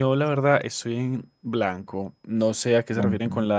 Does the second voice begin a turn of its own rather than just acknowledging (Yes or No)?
No